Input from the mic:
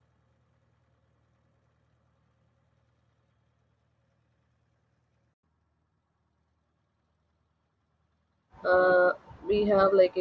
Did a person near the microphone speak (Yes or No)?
Yes